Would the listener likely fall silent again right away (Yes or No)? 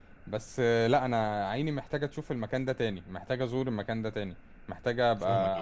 Yes